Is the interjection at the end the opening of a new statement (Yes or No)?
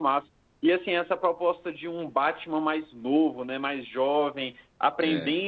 No